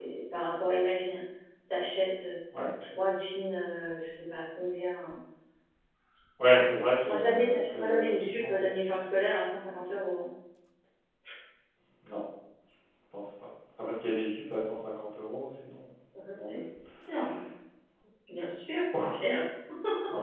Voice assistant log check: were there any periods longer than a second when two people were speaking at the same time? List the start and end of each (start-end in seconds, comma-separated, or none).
6.5-8.7